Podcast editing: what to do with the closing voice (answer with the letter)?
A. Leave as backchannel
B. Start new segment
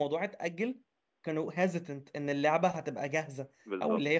A